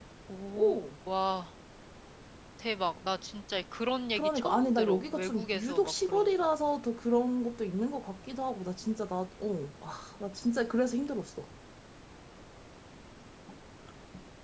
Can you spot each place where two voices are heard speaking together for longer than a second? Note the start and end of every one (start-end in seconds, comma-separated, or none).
4.2-6.4